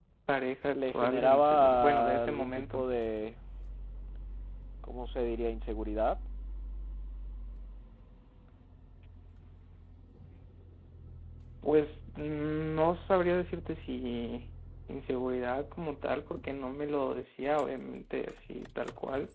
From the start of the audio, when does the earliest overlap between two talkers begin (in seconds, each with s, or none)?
0.7 s